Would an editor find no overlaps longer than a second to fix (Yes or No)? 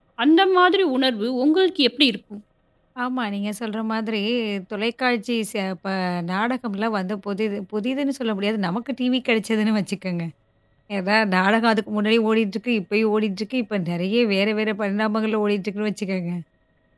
Yes